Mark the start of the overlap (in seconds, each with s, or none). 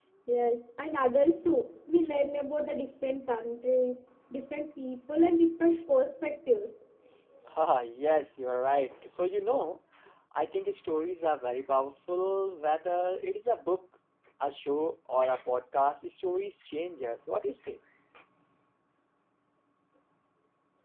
none